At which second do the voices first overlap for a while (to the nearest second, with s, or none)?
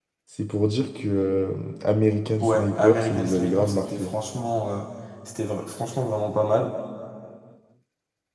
2 s